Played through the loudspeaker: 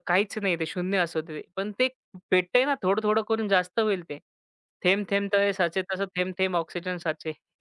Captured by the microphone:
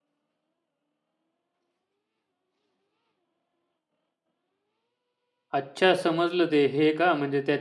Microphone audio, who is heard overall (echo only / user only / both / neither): user only